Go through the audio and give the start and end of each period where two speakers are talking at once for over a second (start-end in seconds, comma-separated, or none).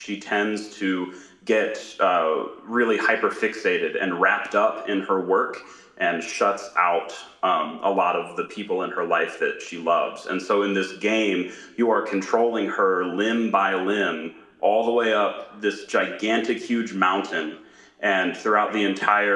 none